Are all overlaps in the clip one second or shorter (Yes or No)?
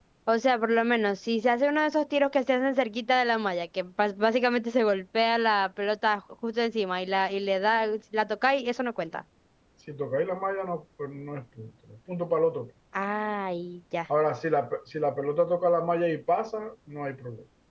Yes